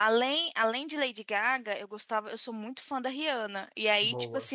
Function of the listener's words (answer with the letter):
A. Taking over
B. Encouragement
B